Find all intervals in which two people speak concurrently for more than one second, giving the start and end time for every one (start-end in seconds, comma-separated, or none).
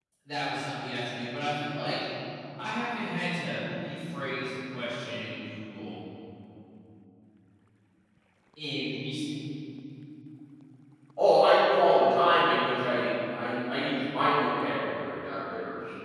none